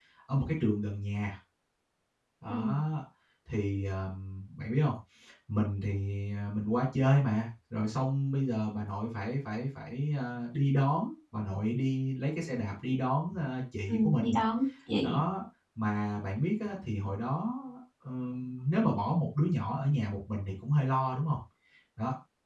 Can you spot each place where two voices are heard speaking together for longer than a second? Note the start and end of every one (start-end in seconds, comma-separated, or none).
none